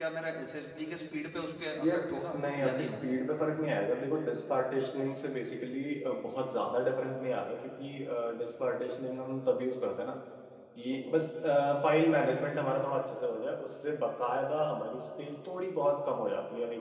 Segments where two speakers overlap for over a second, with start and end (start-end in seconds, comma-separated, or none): 1.8-3.1